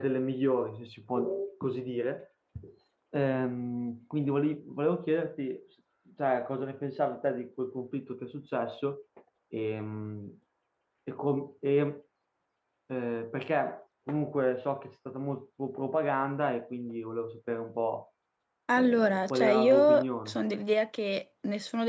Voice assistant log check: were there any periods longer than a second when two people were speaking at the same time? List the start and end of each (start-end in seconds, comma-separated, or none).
18.8-20.4